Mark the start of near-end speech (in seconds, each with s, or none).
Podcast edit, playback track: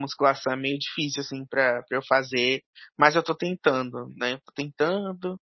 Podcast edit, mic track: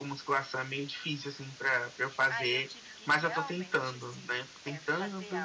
2.3 s